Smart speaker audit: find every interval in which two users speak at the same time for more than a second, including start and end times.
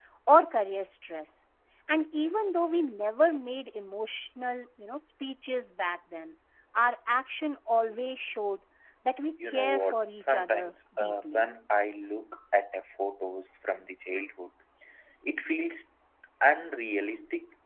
9.5-11.4

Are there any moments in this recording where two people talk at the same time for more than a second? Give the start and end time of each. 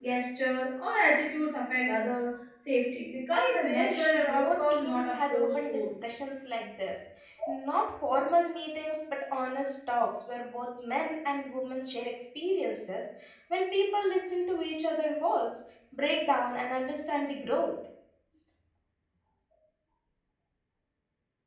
3.3-5.8

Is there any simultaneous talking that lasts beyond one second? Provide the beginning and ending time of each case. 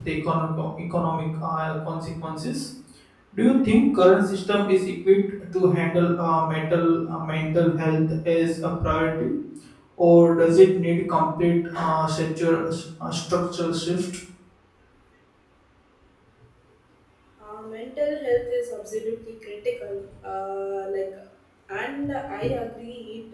none

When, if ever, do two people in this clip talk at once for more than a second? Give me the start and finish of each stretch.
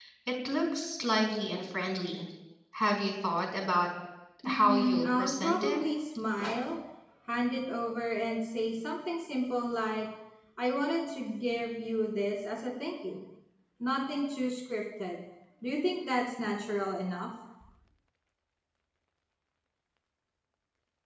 4.4-5.8

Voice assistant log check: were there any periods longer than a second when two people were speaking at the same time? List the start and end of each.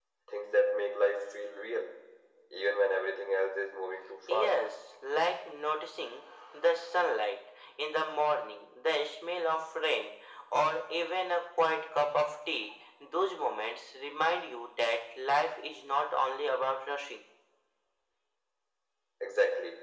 none

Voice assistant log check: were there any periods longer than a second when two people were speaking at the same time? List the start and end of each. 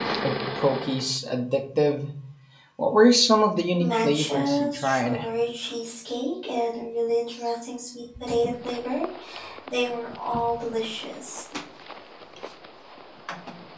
3.8-5.2

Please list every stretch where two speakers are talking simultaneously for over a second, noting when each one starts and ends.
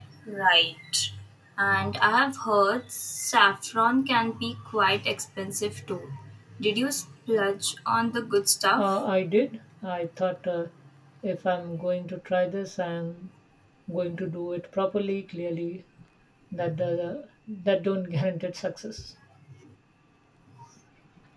none

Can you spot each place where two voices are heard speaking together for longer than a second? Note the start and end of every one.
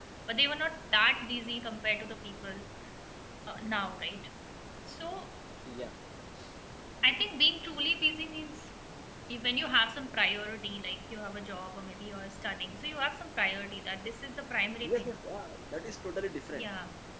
none

